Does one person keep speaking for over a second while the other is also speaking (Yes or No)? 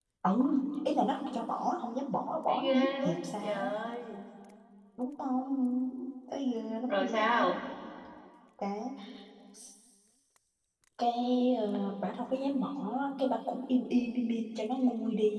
Yes